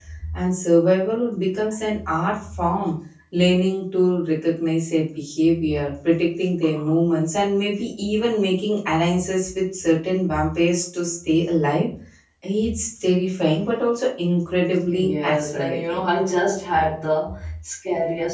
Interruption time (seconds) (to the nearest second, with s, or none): 15 s